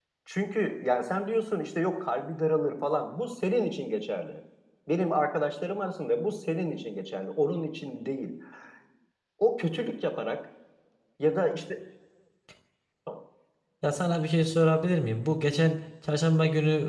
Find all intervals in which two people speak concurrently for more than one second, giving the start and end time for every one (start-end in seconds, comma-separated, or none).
none